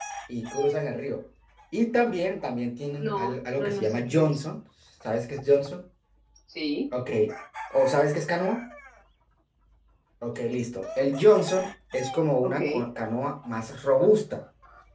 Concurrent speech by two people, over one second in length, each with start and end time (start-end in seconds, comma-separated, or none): 3.0-4.4